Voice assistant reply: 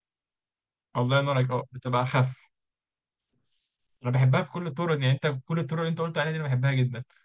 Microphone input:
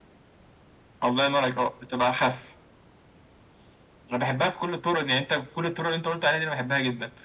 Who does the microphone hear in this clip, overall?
echo only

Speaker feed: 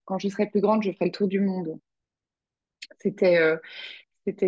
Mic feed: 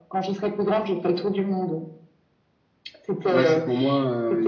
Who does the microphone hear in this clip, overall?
both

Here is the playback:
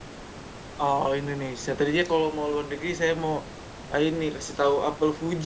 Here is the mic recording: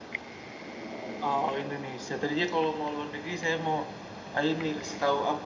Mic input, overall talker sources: echo only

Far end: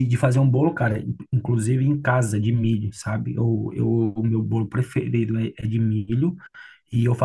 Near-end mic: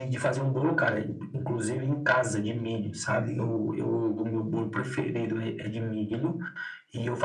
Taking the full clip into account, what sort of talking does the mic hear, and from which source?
both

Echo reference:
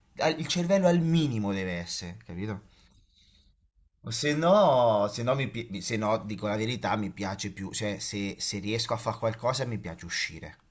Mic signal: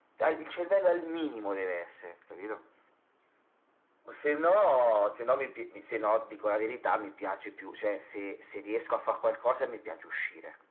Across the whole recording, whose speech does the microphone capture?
echo only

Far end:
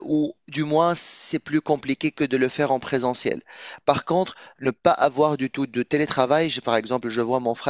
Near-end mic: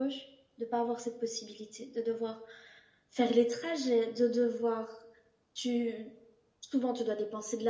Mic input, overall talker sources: user only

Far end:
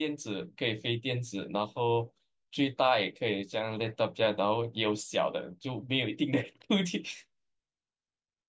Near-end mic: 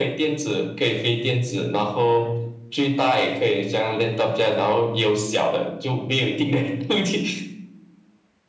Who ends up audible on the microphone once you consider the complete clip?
echo only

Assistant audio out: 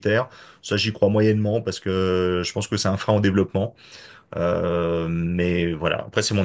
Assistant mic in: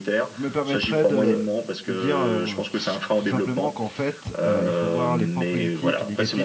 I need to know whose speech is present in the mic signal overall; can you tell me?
both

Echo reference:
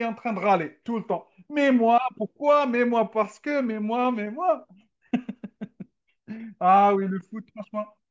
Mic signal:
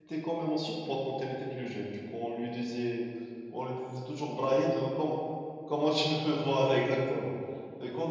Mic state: user only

